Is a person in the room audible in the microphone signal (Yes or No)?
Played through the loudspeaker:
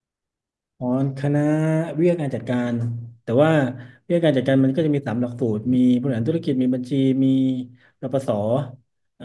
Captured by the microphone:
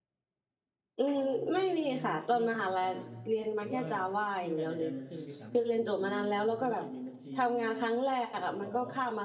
Yes